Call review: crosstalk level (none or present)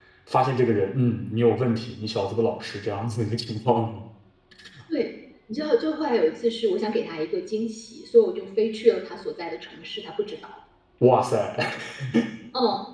none